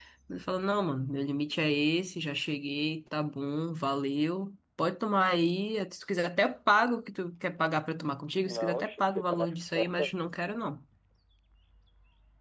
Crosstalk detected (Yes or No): Yes